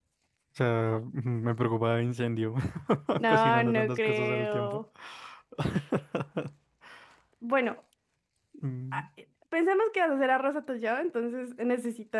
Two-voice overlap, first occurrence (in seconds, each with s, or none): 3.3 s